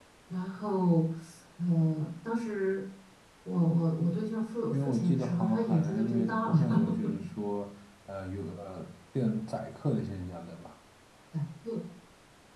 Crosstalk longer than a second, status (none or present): present